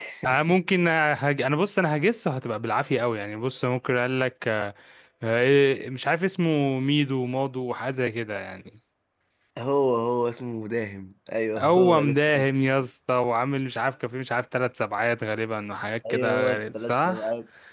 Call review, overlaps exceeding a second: present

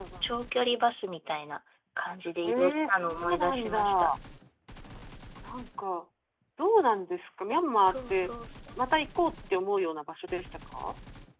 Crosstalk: present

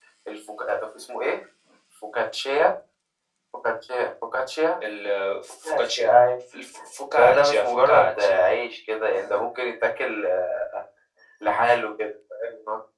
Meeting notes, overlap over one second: present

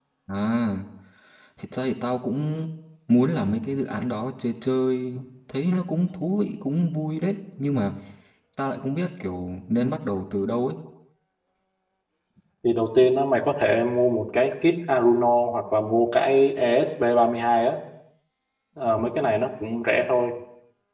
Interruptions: none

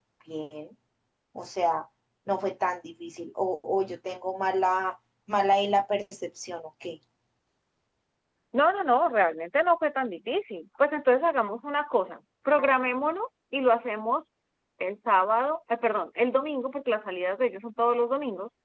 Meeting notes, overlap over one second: none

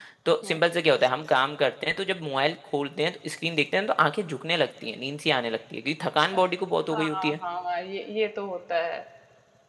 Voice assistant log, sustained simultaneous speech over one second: none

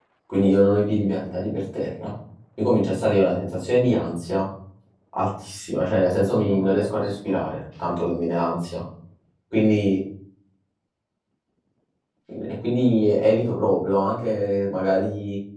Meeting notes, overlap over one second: present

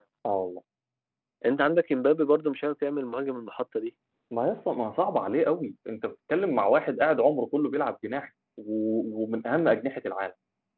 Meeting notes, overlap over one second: none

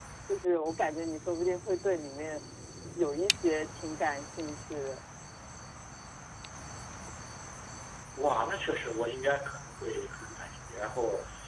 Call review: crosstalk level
none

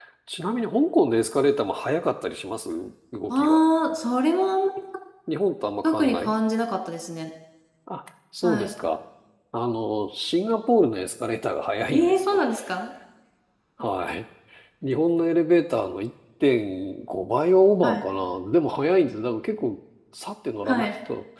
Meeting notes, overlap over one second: none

